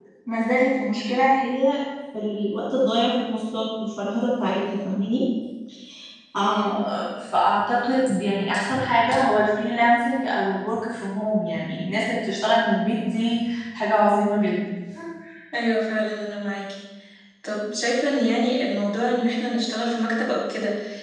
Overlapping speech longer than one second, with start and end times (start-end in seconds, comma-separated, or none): none